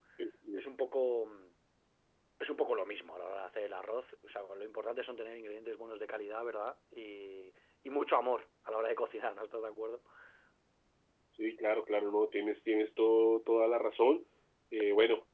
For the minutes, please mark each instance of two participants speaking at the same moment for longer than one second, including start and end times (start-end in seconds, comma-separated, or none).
none